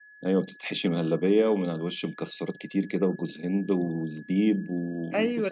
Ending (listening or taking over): taking over